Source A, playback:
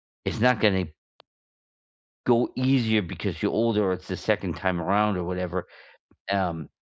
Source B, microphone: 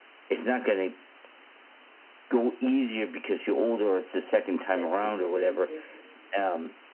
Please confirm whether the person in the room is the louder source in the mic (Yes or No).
No